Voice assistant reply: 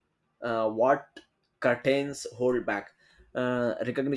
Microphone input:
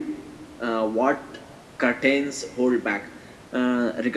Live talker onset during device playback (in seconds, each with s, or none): none